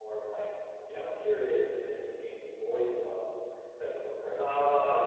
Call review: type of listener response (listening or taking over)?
listening